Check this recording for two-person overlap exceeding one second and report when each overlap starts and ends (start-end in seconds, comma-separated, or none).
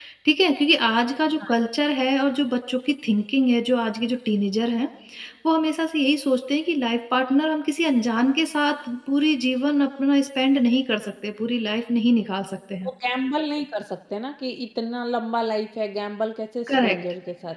none